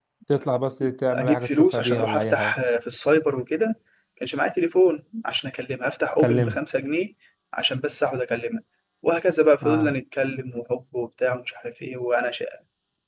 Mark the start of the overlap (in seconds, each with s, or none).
1.1 s